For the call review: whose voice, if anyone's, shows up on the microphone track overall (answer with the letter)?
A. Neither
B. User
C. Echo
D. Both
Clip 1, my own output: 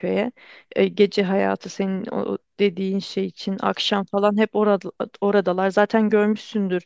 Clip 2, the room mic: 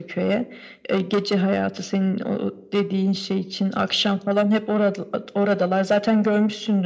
C